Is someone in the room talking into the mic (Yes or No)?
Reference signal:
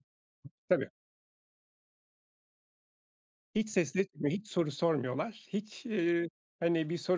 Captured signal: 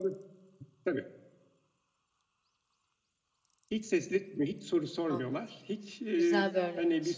Yes